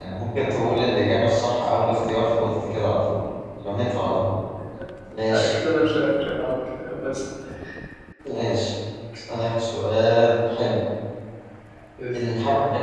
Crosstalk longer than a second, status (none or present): none